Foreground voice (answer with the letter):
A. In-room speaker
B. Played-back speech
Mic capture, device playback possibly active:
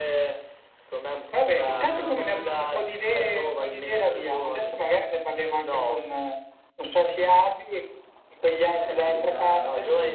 B